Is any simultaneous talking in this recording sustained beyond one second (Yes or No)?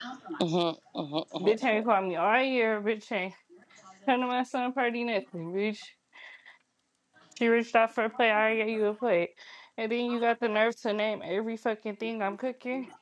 No